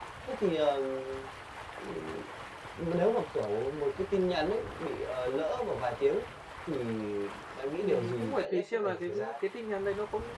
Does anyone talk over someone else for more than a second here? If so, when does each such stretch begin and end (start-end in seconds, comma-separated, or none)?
7.8-9.3